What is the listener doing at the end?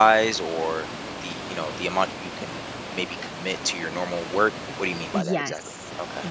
taking over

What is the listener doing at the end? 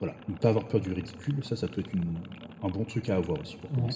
taking over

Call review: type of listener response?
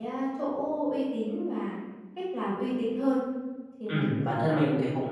taking over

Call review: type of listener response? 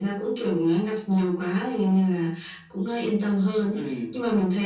listening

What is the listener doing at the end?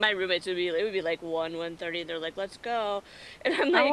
taking over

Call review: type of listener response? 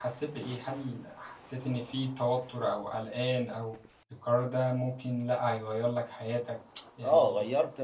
taking over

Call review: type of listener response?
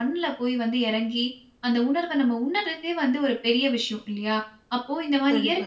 listening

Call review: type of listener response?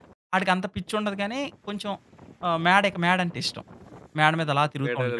taking over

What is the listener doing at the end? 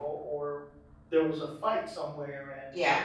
listening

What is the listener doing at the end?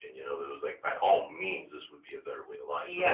taking over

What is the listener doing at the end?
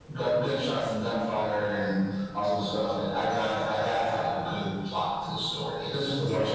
listening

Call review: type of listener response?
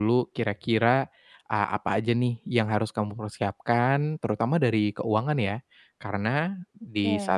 listening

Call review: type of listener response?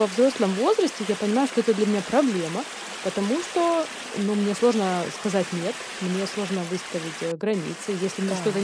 listening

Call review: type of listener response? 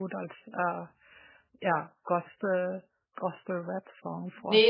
taking over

